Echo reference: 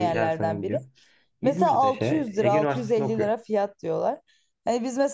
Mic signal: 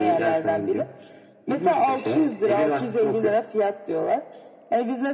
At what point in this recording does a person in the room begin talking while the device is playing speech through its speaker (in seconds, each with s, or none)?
none